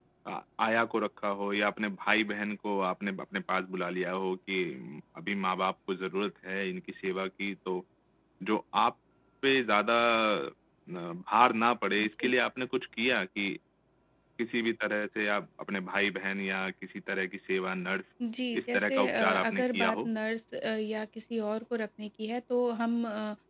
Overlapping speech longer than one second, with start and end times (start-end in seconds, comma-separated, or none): 18.6-20.1